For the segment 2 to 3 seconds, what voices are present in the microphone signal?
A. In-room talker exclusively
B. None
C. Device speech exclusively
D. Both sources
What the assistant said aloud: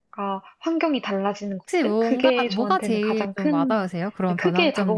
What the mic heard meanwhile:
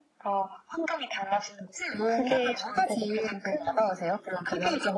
C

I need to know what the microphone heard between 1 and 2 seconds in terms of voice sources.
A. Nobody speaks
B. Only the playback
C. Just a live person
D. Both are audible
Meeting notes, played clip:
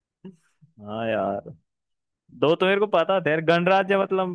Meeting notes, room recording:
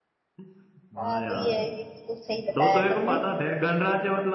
D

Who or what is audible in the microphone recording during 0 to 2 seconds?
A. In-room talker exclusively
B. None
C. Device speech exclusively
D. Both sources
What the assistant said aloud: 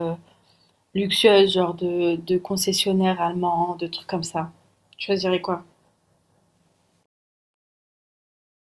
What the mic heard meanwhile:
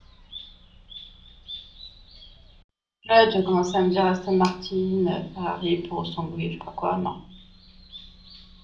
B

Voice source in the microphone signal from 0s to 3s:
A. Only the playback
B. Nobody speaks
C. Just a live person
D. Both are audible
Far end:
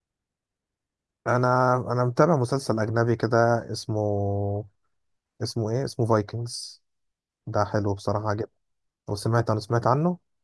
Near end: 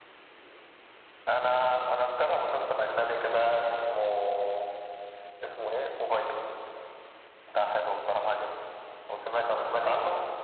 A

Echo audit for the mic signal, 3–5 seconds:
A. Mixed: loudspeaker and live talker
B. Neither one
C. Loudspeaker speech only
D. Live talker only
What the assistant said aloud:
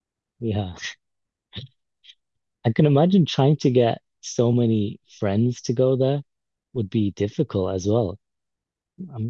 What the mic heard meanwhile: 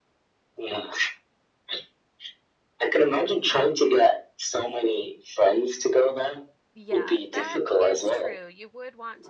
C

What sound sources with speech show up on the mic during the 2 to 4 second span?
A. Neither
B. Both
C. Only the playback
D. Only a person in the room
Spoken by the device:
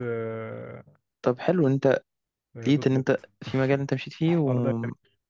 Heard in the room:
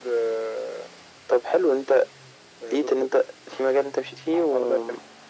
C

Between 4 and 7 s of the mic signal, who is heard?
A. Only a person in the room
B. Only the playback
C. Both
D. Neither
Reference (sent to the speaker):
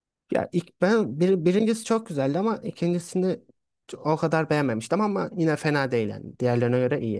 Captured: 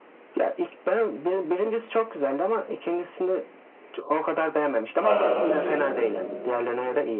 C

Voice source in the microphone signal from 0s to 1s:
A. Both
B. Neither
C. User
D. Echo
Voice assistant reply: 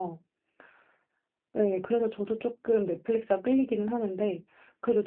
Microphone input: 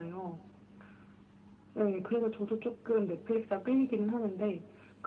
D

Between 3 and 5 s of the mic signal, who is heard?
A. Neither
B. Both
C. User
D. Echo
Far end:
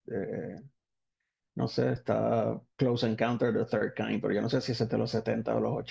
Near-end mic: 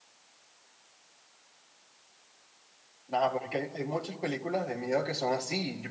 C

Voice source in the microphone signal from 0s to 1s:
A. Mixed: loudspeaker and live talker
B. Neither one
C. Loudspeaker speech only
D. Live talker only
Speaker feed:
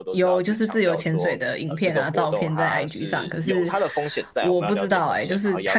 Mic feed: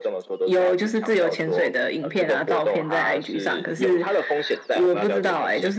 C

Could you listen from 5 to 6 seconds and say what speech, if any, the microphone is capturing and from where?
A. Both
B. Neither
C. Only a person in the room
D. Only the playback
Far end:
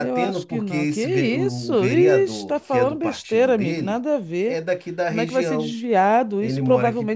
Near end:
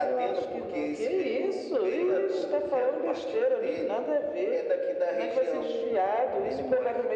D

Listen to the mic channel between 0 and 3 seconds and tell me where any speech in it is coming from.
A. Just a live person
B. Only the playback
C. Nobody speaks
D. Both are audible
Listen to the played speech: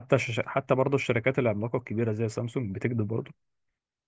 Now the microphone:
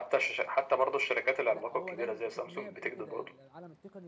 D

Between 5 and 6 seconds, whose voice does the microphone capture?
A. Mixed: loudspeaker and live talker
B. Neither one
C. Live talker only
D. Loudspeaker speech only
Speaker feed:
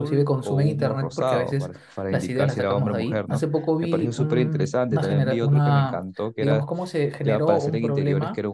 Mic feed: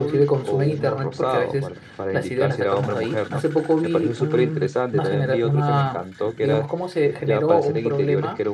D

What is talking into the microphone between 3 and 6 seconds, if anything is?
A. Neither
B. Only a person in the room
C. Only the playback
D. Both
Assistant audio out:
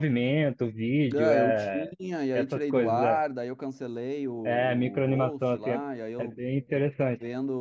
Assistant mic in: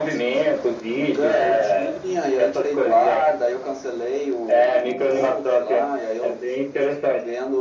C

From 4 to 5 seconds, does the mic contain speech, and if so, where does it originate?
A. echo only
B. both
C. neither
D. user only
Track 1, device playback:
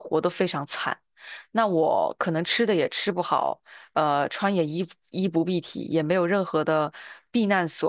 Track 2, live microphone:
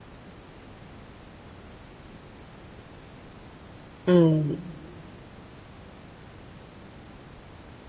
D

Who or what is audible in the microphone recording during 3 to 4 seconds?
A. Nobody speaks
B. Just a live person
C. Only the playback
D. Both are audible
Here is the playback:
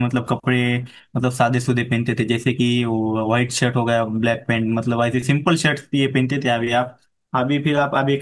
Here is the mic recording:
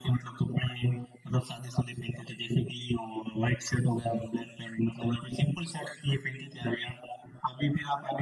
C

